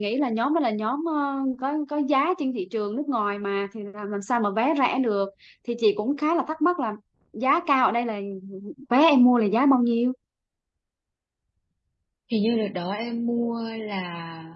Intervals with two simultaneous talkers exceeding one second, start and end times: none

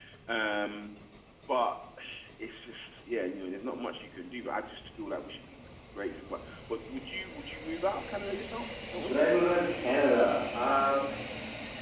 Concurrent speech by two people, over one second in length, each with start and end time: none

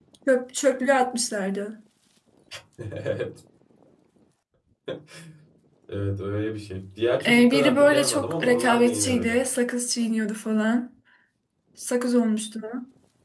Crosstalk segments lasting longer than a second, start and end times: 7.2-9.4

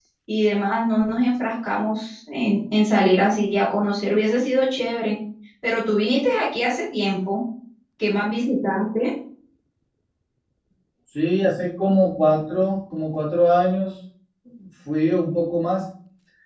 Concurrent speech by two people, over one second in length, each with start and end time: none

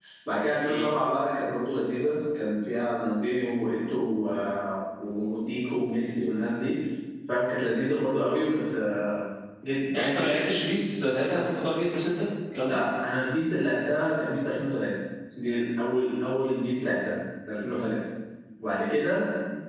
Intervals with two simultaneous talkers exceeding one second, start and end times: none

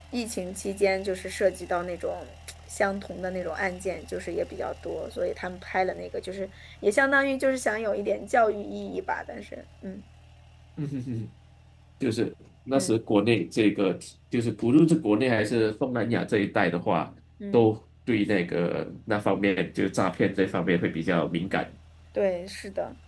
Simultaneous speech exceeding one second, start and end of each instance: none

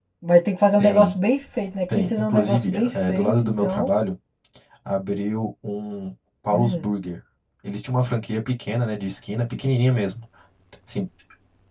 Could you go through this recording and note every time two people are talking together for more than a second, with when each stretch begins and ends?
1.9-3.9

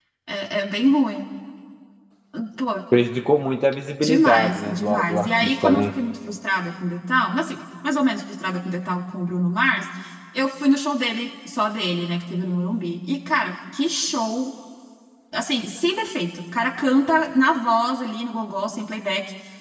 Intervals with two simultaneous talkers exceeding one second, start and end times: 4.0-5.9

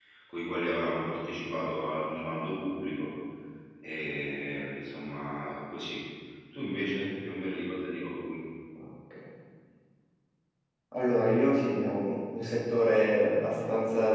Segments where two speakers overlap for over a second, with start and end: none

